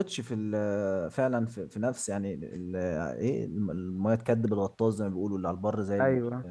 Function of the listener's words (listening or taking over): taking over